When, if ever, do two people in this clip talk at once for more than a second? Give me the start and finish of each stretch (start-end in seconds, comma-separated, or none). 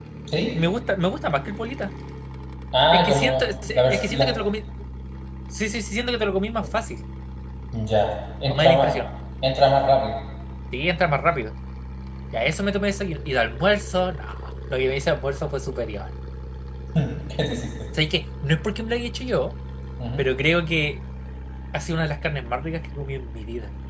2.9-4.3